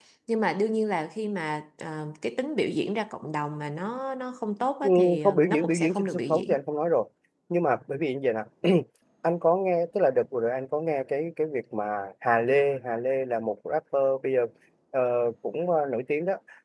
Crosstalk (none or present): present